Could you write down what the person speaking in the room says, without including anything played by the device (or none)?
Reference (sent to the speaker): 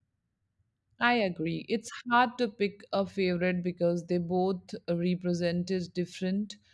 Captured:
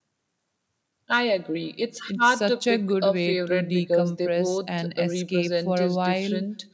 It's such a good way to decompress and escape for a while.